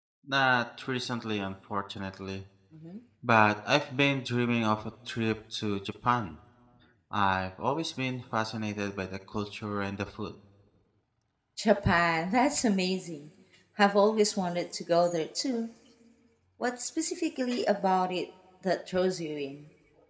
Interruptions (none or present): none